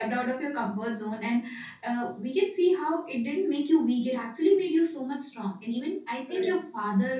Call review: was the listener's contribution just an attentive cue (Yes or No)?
Yes